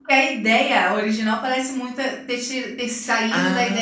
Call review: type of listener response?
taking over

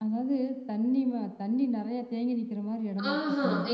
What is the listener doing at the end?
taking over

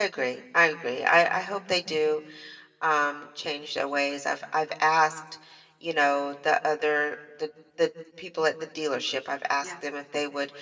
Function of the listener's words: listening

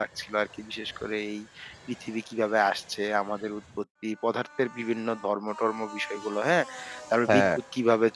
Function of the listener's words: listening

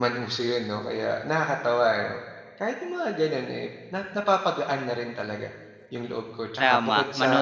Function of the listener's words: taking over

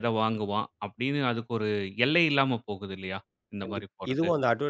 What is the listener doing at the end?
taking over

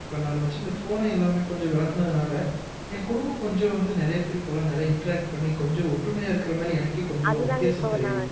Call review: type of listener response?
taking over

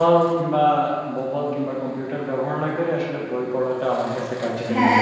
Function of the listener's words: taking over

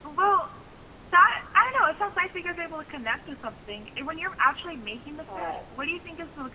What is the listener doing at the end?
listening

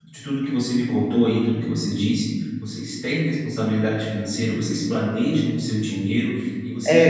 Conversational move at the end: taking over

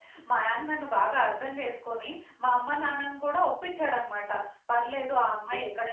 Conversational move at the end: listening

